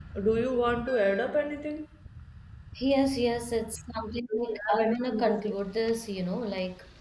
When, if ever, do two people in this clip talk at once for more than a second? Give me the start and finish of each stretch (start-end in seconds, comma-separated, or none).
4.3-5.5